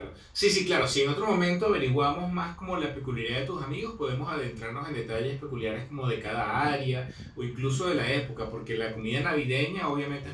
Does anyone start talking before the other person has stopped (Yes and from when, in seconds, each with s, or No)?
No